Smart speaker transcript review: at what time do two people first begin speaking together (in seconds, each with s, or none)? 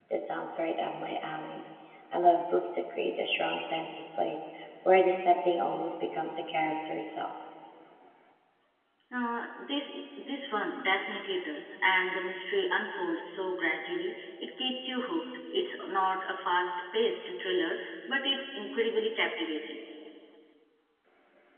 none